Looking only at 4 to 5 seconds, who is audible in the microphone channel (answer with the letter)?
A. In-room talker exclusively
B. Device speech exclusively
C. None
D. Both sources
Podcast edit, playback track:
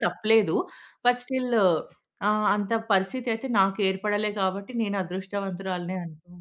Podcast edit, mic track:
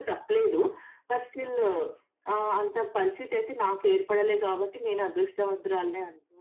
B